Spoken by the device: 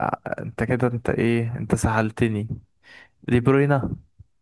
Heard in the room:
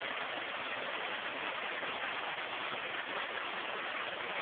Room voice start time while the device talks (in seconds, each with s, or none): none